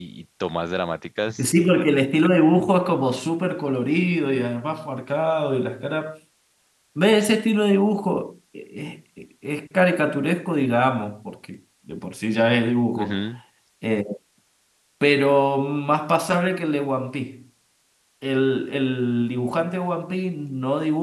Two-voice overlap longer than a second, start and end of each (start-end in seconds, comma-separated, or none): none